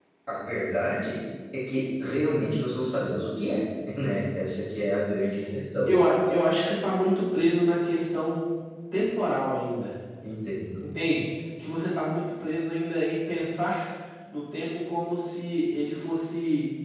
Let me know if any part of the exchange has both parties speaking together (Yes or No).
No